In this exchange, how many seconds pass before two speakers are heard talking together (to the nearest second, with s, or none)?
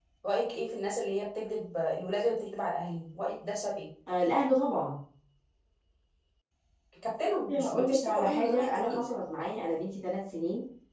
8 s